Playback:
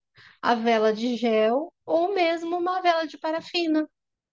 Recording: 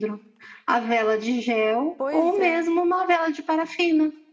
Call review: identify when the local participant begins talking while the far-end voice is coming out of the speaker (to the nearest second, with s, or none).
2 s